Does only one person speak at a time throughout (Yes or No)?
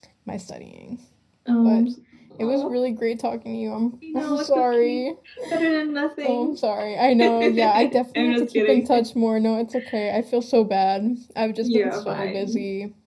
No